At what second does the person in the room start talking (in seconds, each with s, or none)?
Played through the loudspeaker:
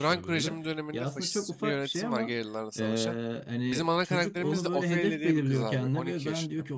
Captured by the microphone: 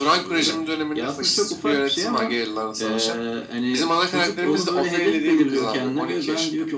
none